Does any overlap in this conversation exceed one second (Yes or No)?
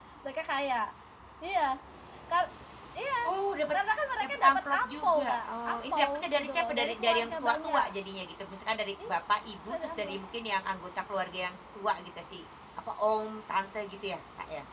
Yes